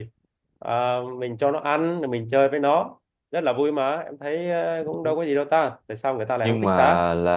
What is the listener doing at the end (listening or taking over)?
taking over